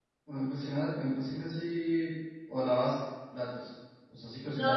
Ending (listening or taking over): taking over